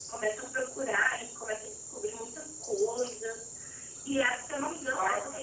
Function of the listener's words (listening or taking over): listening